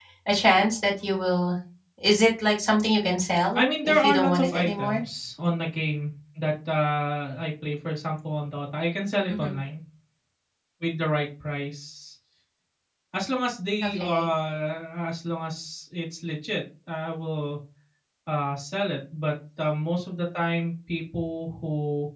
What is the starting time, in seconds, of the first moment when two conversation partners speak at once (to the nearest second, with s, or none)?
4 s